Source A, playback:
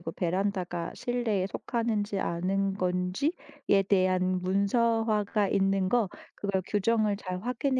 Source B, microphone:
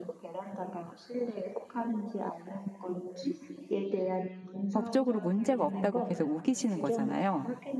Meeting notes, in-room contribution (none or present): present